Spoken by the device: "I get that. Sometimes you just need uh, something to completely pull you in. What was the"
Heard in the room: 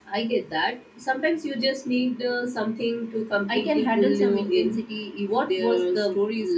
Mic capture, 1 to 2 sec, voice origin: echo only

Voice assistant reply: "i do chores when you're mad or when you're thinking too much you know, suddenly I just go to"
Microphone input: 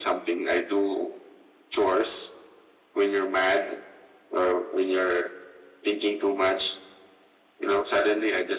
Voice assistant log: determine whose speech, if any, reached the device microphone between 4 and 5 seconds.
echo only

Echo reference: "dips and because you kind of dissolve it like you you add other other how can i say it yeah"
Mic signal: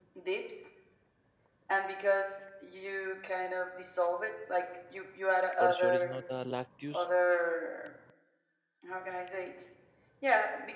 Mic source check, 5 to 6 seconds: both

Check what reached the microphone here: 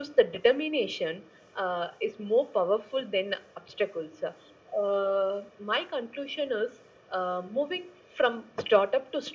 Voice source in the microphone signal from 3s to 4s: echo only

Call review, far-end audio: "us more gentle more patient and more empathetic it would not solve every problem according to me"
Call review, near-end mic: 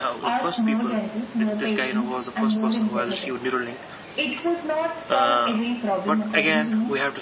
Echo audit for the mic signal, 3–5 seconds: both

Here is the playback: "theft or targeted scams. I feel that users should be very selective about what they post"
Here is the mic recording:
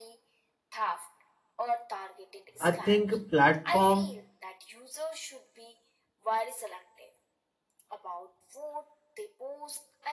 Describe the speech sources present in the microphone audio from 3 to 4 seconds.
both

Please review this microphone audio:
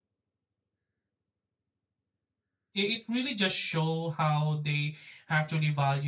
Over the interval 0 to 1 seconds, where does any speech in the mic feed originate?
neither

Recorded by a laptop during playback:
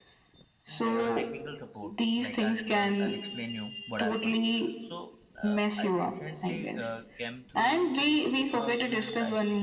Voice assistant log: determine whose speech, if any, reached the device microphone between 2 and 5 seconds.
both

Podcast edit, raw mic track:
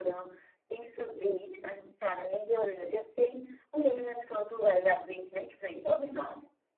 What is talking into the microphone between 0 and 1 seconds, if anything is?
echo only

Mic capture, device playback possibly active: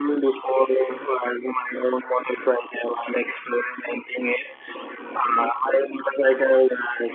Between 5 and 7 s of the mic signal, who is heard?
echo only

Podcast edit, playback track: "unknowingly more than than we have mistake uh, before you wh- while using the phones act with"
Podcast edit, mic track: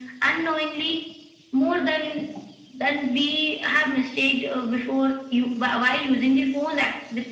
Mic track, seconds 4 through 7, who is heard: echo only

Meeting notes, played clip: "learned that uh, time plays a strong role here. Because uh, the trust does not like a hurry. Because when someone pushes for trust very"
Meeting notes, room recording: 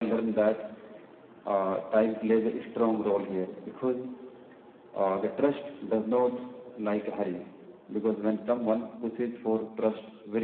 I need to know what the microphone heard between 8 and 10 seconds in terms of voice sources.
echo only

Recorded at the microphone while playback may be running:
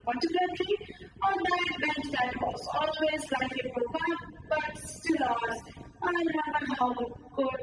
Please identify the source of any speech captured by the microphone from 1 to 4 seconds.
echo only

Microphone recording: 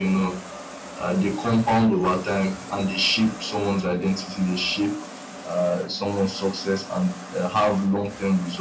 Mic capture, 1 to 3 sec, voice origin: echo only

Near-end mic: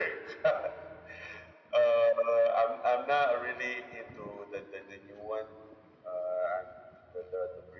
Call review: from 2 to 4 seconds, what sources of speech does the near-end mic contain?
echo only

